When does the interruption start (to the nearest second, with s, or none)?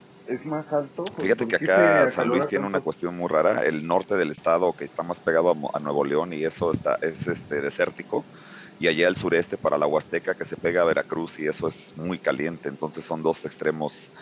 1 s